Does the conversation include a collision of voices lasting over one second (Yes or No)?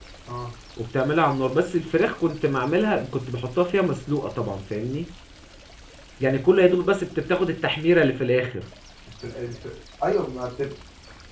No